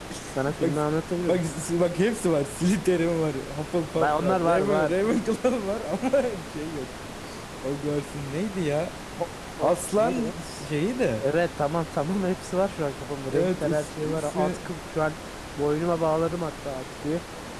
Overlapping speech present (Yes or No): Yes